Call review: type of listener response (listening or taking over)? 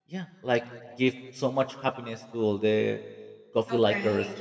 taking over